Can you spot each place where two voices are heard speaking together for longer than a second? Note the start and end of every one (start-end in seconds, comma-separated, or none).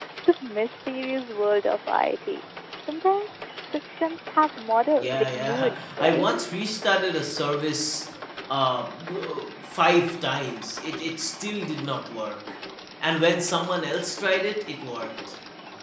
5.0-6.3